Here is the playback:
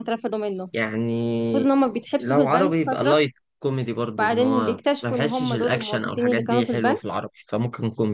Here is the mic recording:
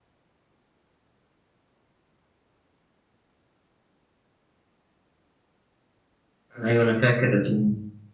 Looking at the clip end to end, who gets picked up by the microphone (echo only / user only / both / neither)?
user only